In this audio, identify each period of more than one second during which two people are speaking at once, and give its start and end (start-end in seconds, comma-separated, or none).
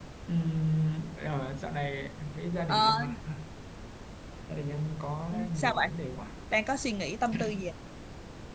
none